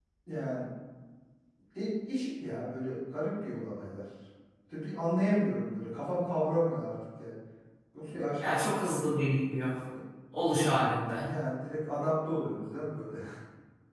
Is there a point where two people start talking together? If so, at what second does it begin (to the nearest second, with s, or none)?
none